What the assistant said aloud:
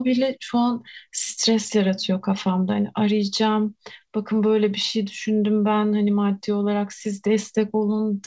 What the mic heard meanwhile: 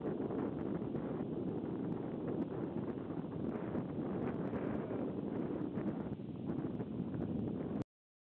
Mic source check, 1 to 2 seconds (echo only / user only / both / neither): neither